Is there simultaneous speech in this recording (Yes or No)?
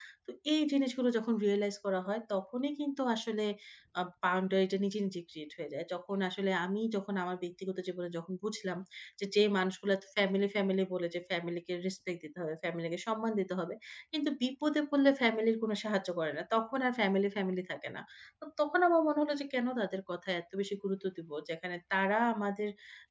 No